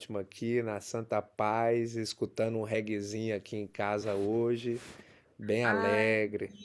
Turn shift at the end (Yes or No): Yes